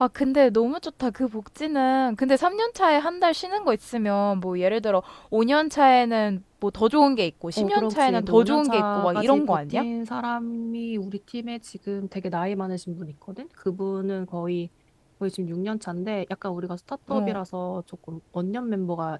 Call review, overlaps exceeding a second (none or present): present